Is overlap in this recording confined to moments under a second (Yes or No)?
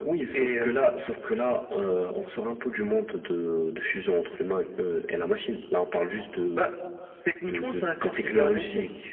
No